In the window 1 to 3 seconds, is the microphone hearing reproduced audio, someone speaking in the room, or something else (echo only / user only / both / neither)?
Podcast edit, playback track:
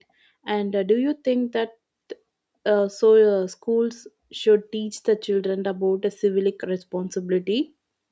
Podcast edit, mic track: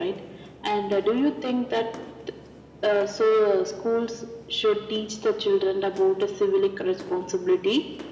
echo only